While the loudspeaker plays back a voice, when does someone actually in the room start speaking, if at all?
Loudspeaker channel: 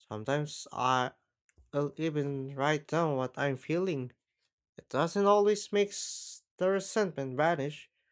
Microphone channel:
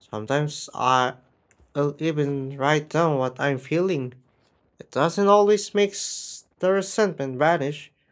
none

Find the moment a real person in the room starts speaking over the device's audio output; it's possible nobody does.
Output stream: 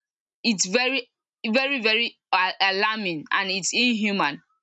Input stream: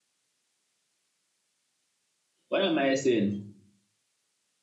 2.5 s

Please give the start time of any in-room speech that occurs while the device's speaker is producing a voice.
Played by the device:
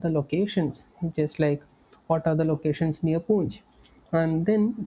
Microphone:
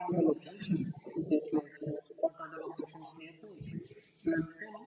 none

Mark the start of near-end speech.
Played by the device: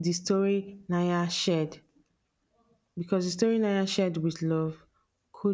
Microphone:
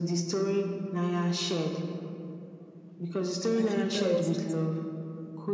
3.5 s

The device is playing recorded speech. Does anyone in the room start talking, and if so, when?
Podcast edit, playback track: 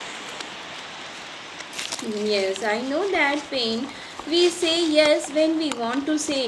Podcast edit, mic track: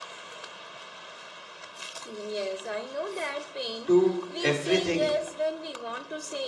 3.9 s

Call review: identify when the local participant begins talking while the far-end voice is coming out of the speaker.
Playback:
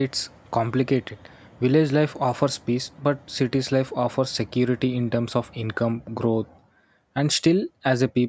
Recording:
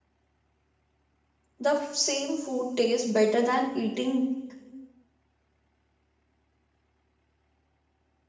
1.6 s

